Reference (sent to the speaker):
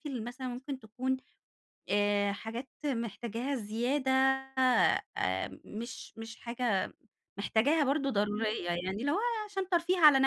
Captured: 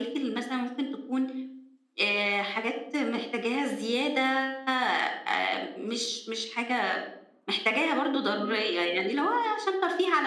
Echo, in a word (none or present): present